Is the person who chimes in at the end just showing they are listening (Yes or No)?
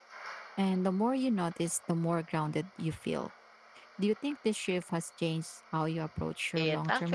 No